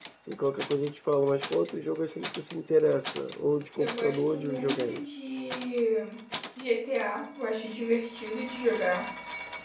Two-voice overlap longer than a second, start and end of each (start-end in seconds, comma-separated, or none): 3.8-5.0